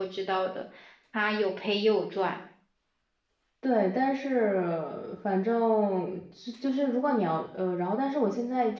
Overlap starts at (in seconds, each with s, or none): none